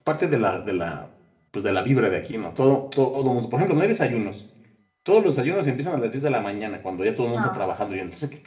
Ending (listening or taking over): listening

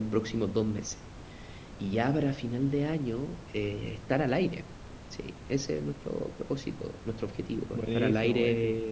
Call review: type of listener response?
listening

